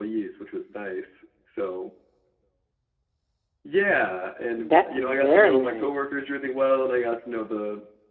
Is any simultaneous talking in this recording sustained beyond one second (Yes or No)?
Yes